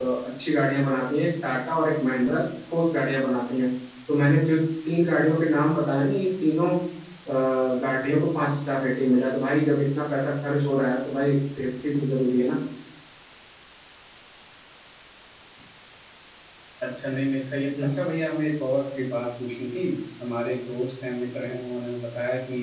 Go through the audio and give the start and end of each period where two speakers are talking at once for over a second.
none

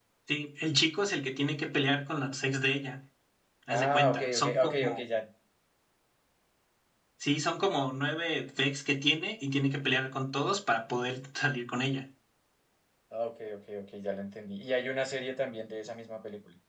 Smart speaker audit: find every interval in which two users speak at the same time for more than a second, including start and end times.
3.7-5.0

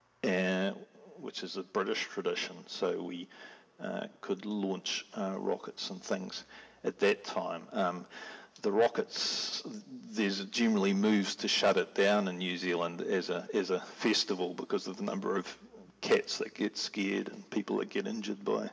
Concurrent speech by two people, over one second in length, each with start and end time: none

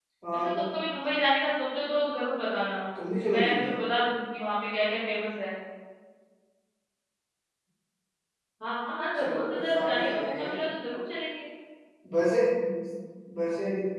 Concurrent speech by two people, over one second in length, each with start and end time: 9.2-10.7

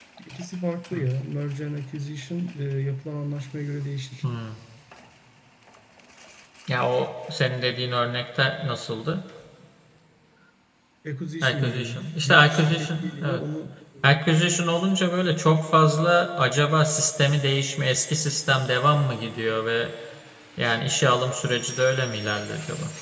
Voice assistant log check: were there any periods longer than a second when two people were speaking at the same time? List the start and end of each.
11.4-13.4

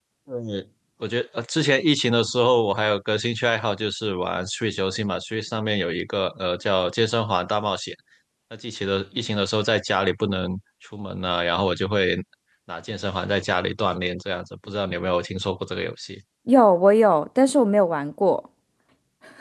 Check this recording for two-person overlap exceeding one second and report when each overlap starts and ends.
none

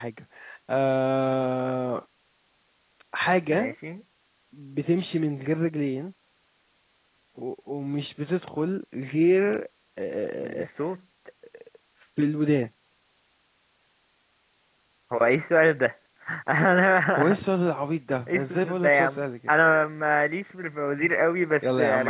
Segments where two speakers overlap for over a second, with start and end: 18.3-19.5

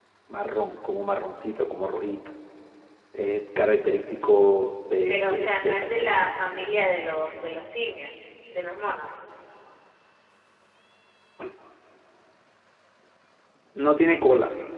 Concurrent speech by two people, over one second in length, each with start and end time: 5.1-6.3

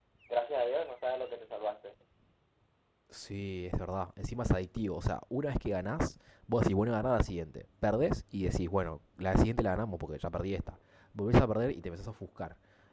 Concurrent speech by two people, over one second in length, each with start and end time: none

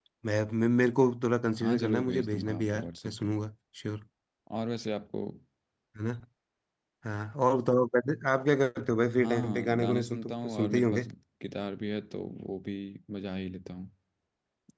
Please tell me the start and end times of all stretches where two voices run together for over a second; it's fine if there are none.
1.6-3.3, 9.2-11.0

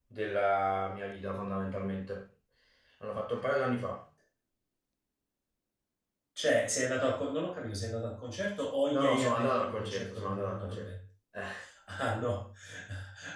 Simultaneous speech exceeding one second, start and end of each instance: 8.9-10.9

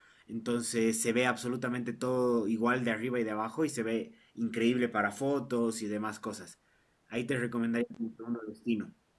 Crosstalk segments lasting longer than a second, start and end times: none

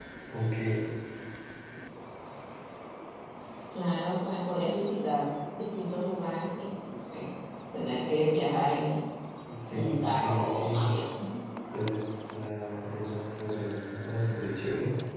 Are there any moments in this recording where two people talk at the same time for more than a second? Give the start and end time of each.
9.7-11.0

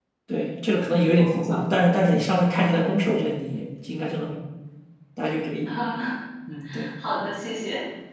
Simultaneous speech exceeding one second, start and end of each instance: none

